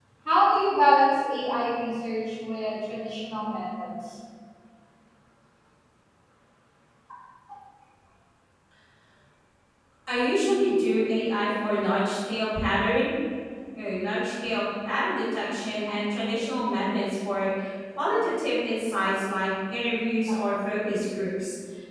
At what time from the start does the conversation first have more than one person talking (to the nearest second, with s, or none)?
none